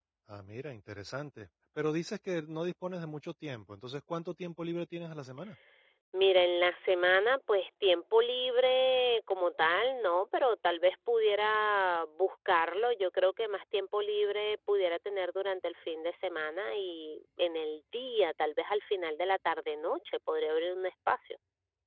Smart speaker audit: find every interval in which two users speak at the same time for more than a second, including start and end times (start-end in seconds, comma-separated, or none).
none